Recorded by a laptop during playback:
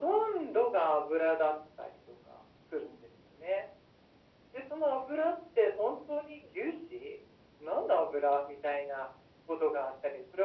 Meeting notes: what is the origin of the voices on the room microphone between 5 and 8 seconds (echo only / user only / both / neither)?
echo only